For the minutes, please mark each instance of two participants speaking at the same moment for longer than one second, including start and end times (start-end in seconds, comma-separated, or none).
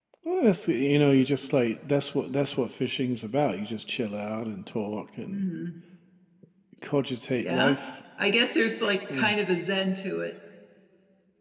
none